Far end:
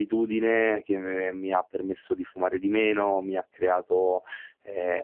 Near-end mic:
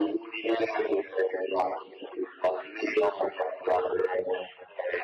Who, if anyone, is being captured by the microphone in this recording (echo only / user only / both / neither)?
echo only